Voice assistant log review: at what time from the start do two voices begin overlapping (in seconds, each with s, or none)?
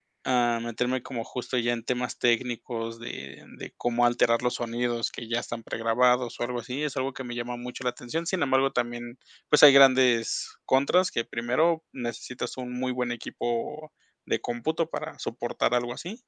none